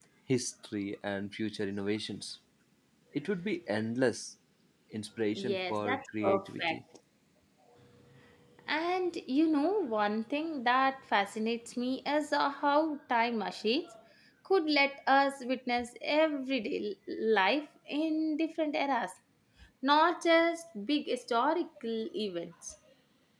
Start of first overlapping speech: 5.3 s

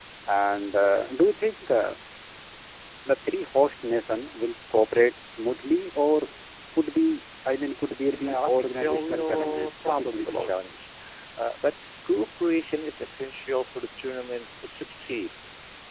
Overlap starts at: 8.1 s

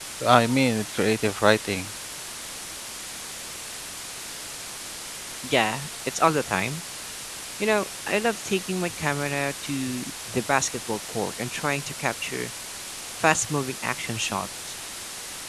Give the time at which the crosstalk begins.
none

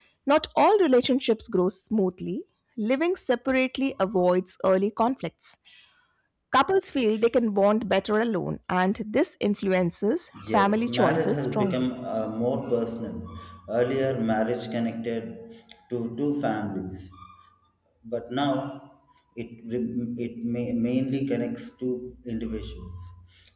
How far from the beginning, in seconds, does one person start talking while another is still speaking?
10.5 s

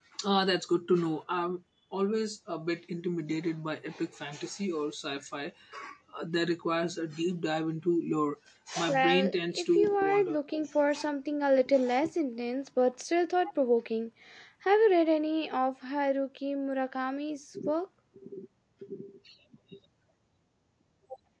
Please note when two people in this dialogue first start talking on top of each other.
8.9 s

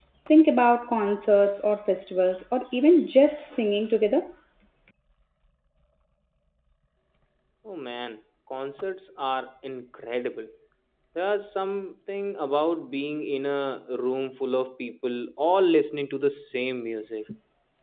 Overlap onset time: none

